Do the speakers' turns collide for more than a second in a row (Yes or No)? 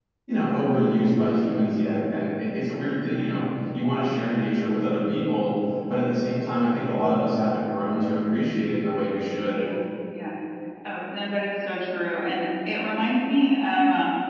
No